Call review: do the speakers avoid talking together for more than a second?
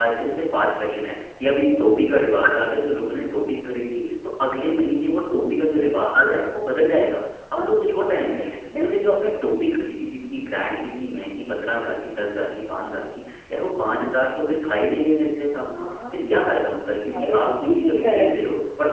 No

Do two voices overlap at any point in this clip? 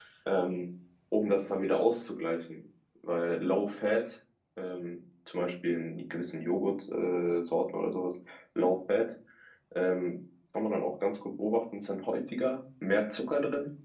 No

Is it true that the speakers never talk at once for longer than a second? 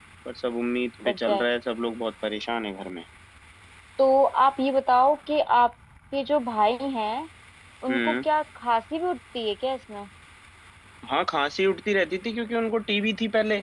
Yes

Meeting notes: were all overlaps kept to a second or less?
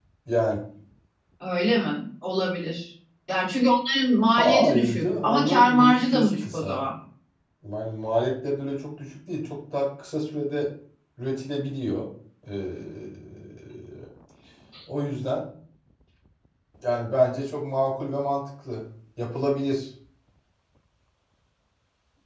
No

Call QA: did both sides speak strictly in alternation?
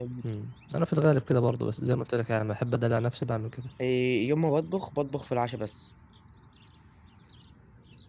Yes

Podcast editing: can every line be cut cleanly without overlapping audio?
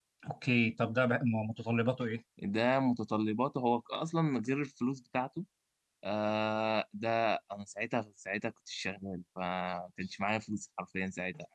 Yes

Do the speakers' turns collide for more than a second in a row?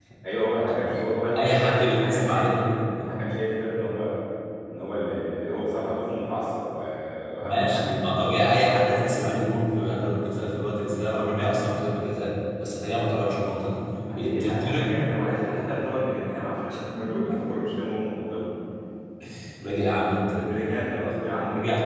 Yes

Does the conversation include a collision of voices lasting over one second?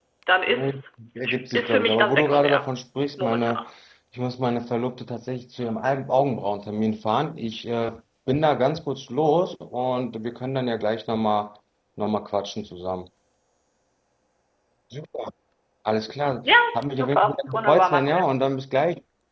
Yes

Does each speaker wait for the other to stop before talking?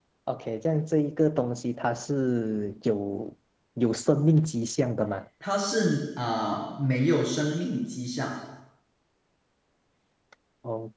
Yes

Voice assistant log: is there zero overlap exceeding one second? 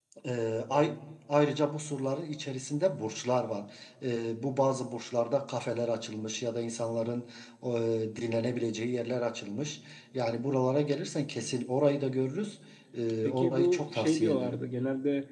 No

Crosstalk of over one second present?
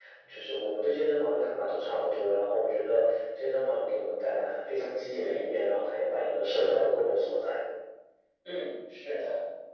No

